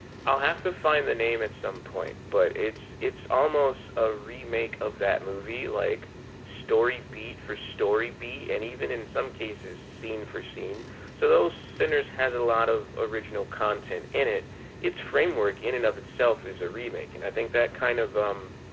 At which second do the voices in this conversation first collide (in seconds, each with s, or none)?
none